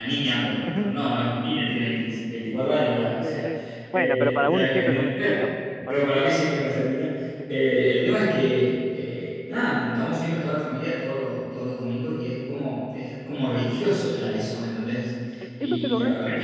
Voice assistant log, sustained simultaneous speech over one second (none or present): present